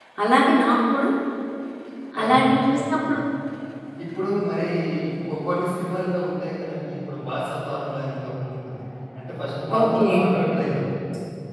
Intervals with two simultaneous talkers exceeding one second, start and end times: none

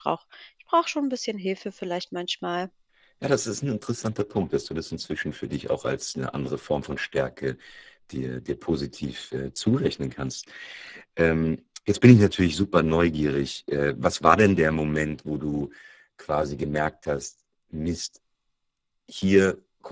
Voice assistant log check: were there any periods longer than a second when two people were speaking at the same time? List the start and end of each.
none

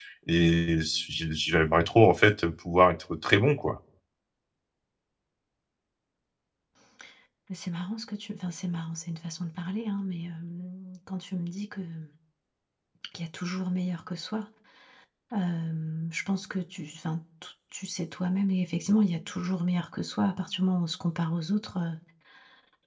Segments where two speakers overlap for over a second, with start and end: none

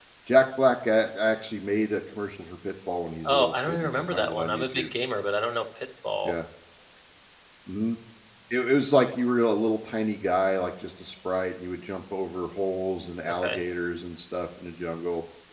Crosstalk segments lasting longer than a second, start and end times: 3.3-4.8

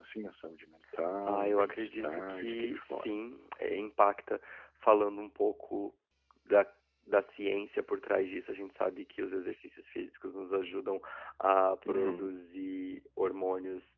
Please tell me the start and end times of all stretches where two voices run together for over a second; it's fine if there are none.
1.2-3.2

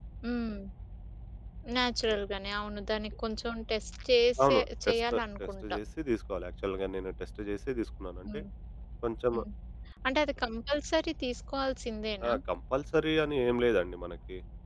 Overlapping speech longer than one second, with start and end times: 4.4-5.8

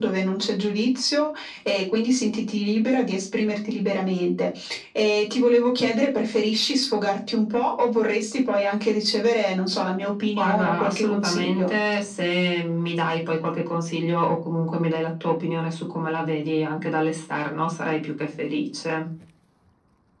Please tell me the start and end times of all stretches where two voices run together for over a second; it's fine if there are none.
10.4-11.7

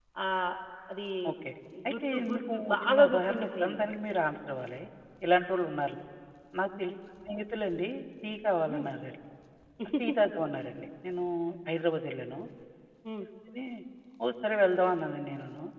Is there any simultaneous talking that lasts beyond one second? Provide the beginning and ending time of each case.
1.9-4.0

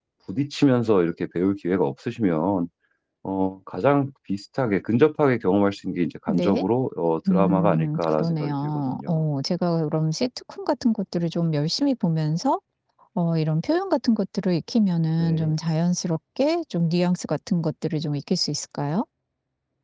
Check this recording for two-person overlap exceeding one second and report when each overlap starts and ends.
7.3-9.2

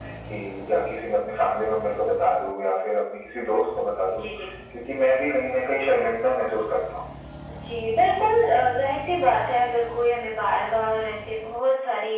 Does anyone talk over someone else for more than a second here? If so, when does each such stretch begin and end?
none

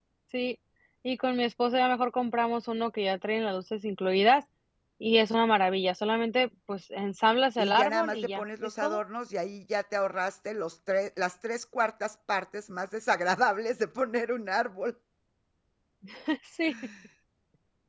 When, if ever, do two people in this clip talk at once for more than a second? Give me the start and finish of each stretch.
7.6-9.0

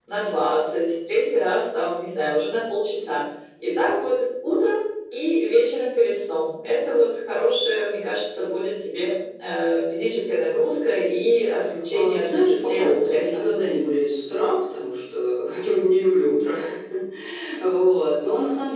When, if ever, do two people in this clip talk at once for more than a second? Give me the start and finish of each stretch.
11.9-13.4

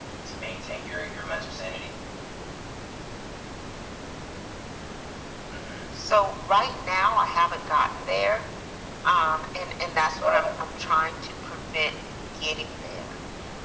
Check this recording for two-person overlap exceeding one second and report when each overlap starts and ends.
none

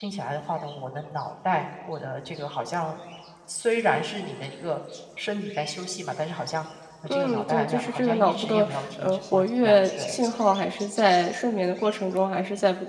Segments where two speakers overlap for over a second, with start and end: 7.1-10.2

